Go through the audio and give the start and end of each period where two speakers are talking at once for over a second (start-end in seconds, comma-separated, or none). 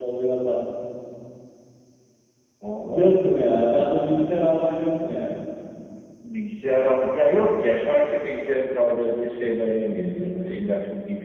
none